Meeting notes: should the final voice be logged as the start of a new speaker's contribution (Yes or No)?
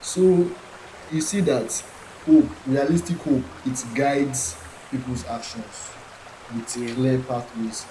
No